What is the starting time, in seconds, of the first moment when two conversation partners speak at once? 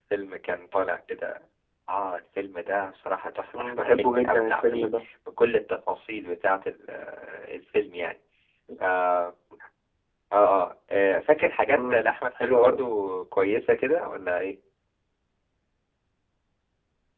3.5 s

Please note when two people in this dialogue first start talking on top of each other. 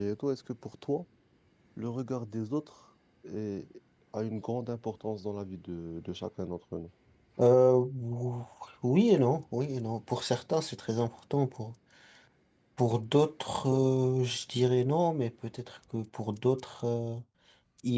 none

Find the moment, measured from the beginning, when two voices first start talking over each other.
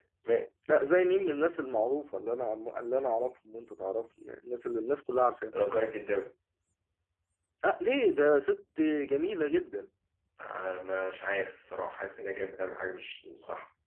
none

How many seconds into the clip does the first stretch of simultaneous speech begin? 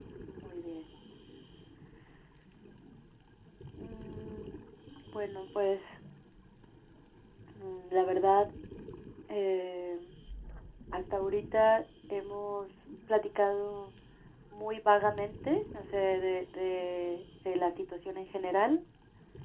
none

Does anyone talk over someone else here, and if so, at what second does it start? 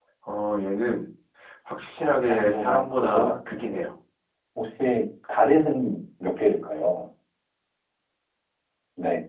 2.0 s

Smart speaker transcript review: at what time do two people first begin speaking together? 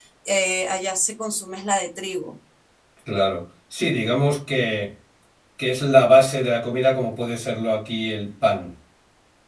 none

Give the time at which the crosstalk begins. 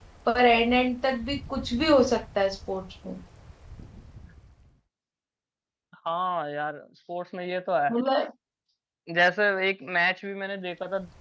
none

